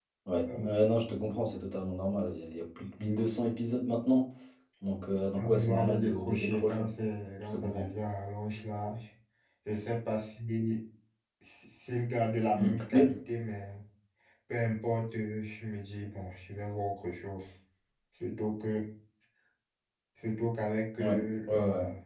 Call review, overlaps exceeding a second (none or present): present